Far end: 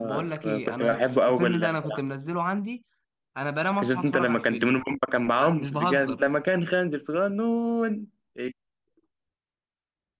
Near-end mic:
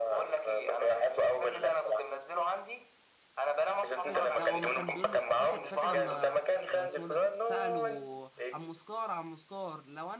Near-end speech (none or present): present